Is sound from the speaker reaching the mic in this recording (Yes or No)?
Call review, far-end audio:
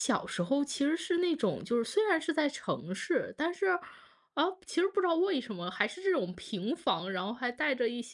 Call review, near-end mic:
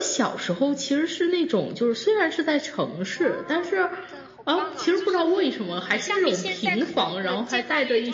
Yes